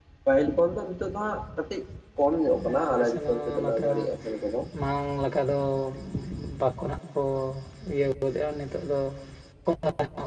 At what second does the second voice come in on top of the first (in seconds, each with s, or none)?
2.6 s